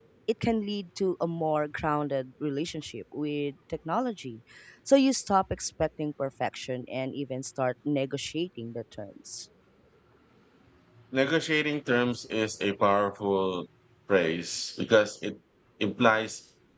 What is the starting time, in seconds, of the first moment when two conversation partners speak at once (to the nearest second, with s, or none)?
none